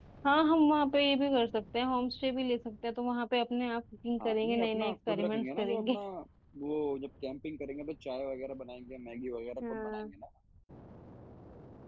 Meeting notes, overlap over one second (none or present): present